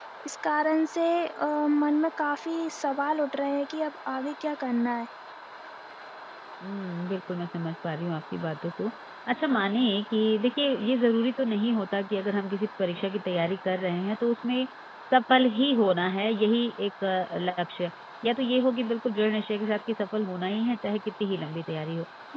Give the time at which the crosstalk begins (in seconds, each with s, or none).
none